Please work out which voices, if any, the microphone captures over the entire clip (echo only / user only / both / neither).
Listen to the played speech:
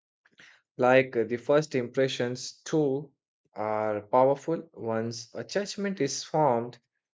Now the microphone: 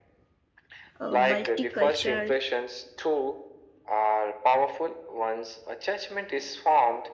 both